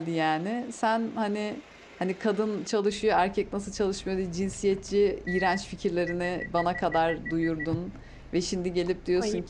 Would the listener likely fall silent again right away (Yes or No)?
Yes